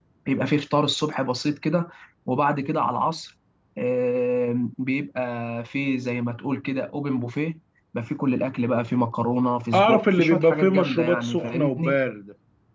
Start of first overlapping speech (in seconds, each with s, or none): 9.7 s